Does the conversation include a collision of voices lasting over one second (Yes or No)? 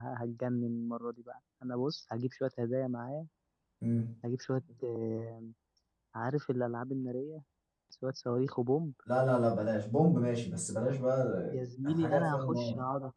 Yes